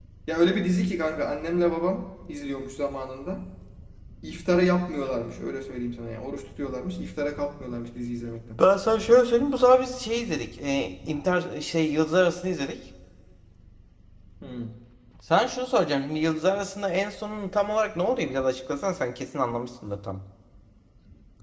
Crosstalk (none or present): none